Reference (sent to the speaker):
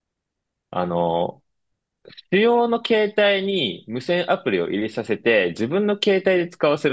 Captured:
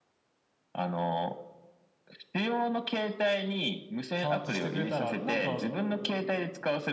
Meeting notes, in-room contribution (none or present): present